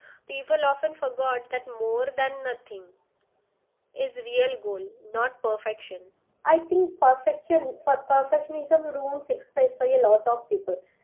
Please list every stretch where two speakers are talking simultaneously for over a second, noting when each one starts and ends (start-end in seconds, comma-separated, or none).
none